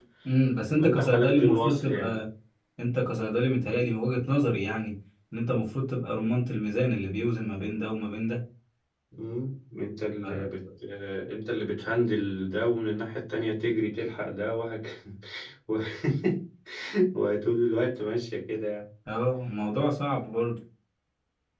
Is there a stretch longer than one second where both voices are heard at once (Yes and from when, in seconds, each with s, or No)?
Yes, from 0.8 s